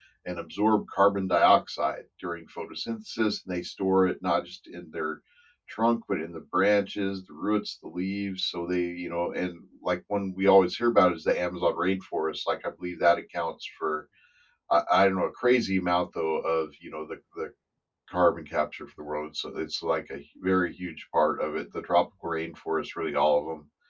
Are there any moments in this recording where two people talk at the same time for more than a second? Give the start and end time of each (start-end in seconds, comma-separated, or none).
none